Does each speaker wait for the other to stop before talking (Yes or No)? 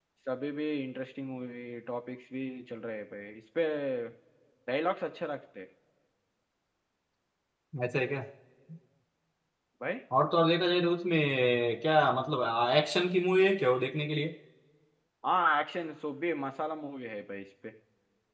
Yes